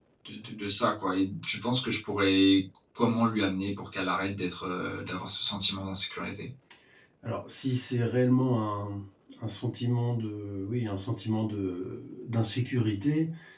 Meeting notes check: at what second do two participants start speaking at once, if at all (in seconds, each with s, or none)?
none